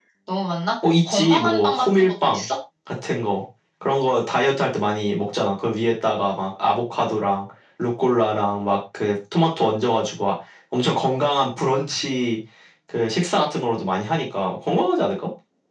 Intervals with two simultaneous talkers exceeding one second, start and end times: 1.1-2.5

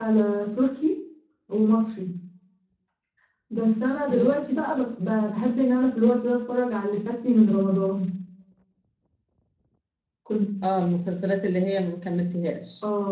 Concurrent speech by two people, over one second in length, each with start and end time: none

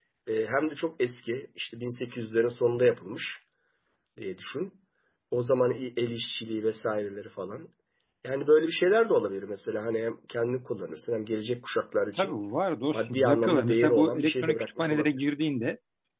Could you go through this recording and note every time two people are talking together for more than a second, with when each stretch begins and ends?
12.9-15.3

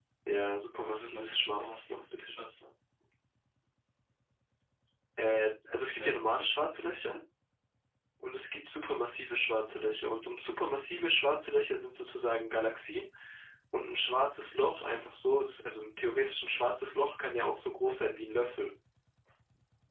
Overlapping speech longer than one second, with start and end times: 0.8-2.4

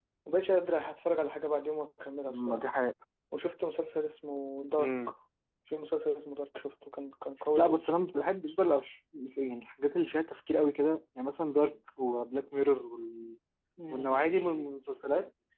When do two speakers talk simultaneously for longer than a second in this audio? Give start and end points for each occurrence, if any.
none

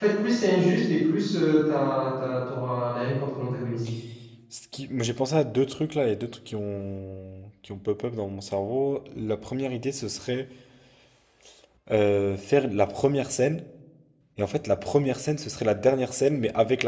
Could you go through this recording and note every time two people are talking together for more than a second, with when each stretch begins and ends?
none

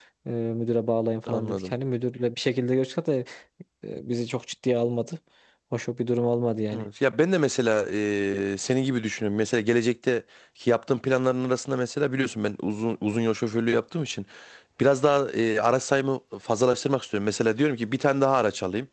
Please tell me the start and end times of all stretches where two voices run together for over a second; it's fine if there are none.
none

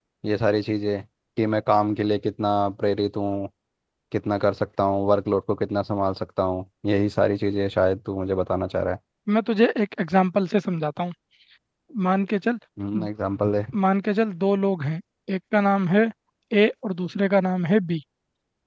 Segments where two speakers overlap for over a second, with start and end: none

